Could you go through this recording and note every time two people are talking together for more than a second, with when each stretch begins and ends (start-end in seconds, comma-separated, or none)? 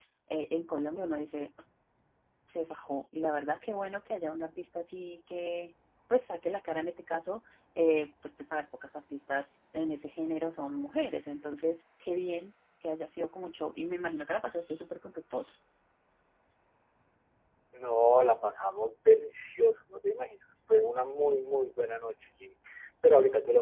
none